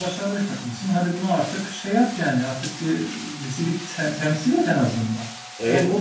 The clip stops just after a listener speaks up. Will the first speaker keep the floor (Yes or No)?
No